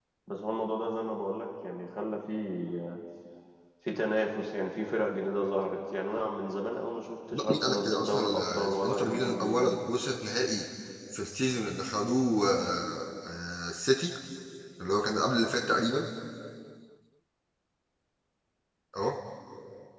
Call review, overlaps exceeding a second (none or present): present